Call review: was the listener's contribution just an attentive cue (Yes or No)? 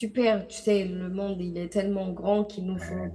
Yes